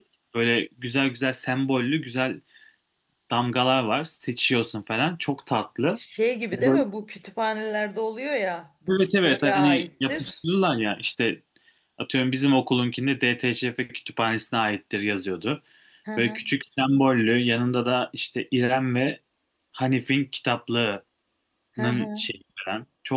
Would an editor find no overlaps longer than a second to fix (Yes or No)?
No